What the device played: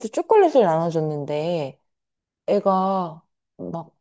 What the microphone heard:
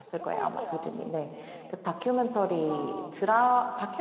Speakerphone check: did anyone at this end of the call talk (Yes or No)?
Yes